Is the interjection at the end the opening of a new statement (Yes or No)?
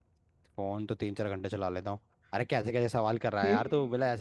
No